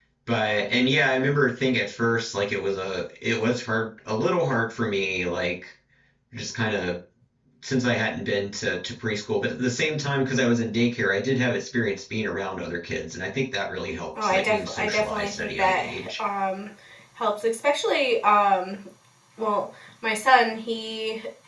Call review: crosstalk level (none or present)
present